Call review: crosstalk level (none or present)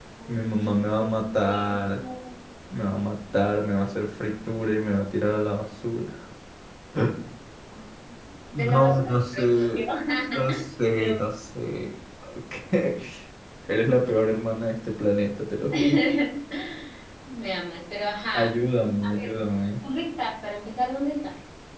present